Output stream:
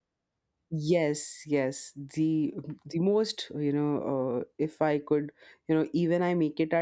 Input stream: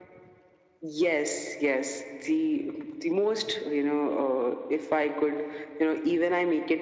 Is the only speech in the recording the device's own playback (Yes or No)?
Yes